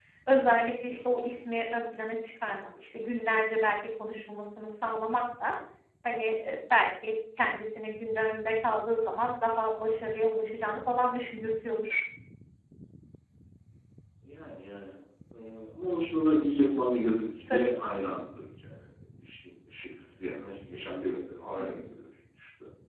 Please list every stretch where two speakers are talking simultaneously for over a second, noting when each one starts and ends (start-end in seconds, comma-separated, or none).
none